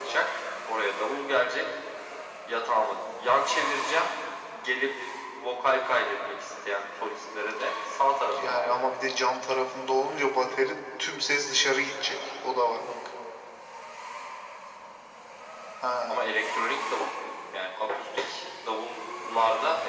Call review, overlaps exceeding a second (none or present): none